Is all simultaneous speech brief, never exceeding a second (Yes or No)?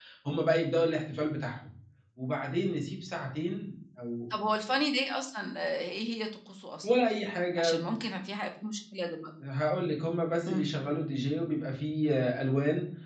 Yes